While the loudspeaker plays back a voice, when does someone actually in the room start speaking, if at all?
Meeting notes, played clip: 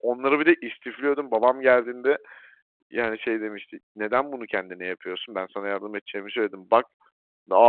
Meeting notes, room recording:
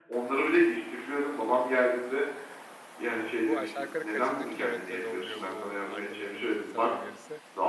3.4 s

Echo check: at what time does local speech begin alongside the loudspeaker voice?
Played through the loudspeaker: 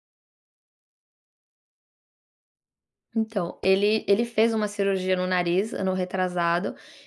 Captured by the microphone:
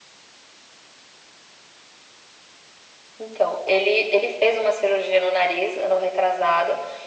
none

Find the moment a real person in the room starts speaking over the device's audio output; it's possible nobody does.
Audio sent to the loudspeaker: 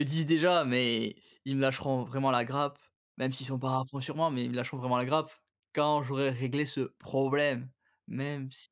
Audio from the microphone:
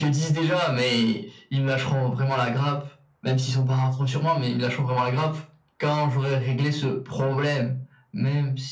none

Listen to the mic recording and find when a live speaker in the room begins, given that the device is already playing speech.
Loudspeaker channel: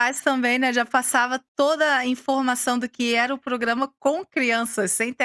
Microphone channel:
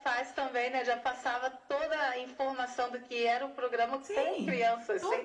4.0 s

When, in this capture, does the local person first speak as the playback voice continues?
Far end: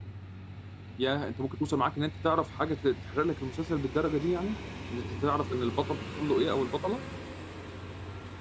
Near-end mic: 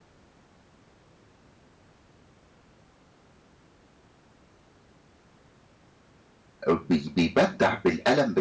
6.7 s

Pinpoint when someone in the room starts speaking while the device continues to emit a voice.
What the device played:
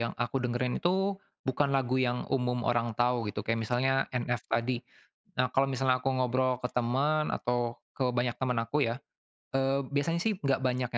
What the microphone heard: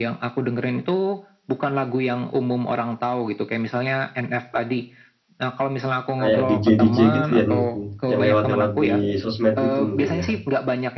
6.2 s

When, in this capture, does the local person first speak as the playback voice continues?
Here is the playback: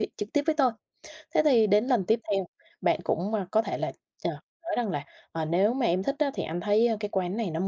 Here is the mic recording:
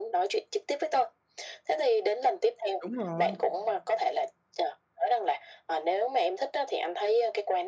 2.8 s

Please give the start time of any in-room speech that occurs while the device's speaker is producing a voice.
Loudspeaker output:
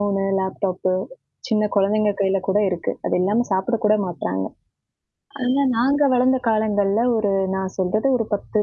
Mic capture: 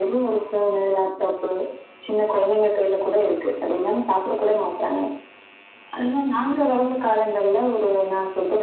none

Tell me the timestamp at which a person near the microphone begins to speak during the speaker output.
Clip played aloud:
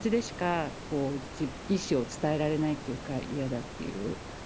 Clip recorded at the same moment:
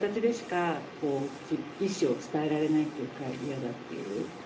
none

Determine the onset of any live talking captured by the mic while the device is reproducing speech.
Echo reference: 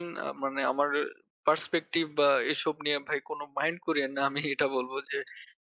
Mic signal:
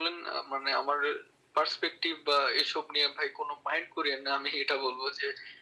none

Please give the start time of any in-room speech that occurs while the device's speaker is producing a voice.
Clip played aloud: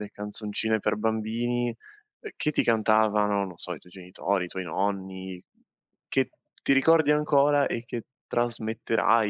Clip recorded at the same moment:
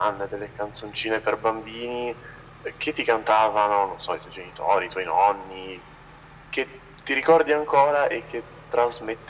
none

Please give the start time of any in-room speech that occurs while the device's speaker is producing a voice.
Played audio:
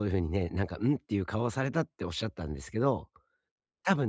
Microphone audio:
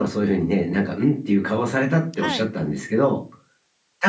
2.2 s

